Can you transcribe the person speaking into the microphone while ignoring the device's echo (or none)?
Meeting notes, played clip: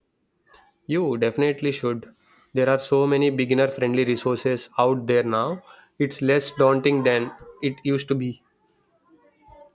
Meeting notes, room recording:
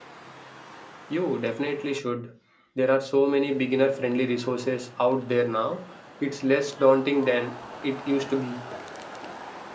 none